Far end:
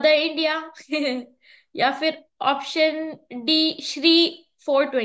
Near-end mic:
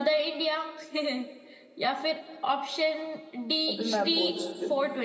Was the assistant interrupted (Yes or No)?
Yes